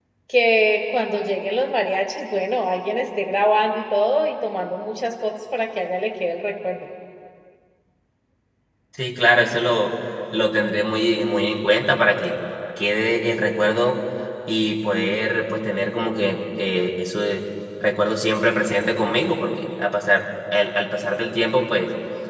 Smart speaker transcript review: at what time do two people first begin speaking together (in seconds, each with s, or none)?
none